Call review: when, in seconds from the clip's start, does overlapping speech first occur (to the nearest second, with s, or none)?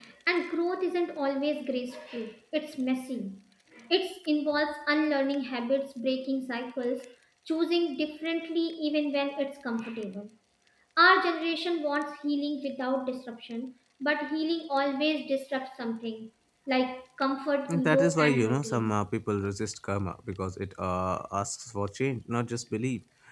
18 s